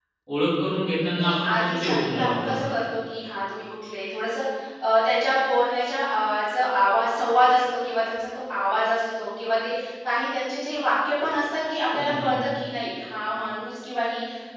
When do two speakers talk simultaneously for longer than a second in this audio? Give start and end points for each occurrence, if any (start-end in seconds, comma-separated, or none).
1.2-2.7